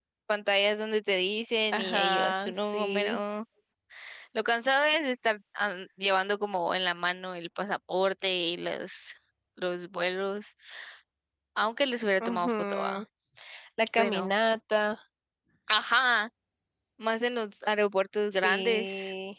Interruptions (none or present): present